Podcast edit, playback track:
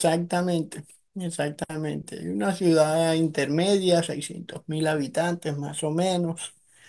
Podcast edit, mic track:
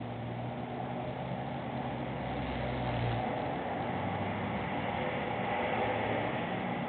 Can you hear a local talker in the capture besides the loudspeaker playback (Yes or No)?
No